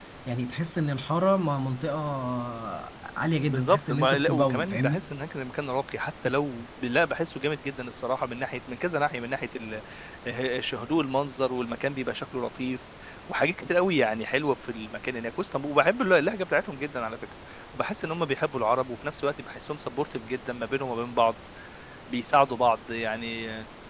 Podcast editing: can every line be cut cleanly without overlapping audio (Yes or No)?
No